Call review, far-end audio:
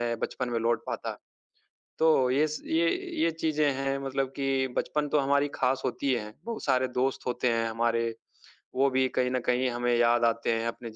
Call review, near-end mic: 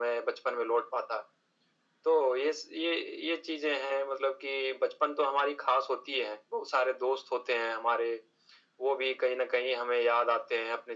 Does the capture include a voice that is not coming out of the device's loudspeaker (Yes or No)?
No